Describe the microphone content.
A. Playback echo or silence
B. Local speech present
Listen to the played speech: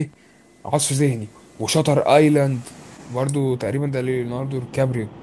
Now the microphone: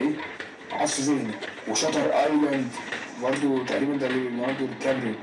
A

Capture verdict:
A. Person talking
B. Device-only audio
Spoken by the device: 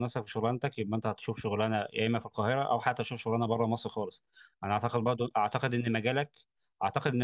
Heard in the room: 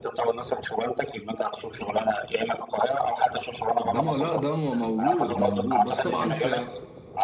A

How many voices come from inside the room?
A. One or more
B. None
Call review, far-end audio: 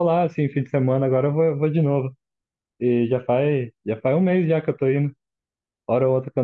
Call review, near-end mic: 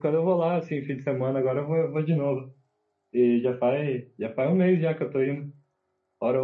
B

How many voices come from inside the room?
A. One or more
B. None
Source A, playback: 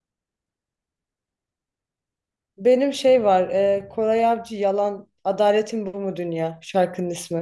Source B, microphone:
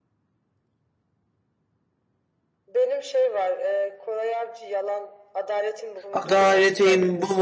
A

